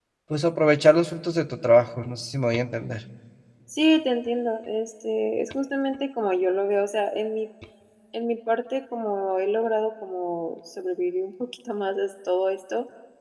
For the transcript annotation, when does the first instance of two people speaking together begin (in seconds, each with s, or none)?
none